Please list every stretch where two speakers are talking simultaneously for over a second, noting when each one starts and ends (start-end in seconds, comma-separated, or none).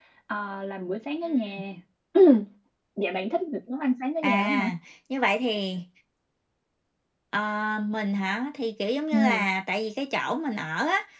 none